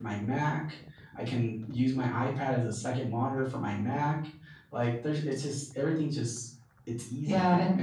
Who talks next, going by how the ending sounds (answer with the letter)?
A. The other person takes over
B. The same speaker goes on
A